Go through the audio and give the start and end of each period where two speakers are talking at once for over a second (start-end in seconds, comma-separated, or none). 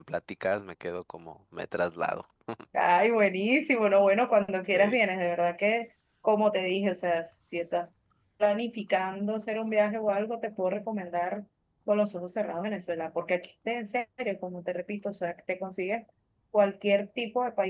none